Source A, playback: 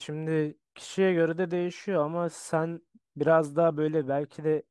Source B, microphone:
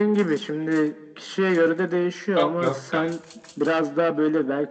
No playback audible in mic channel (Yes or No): No